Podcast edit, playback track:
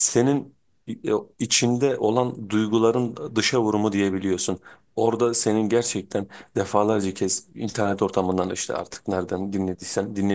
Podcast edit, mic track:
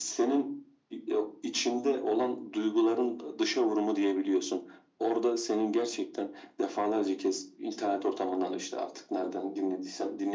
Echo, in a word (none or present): present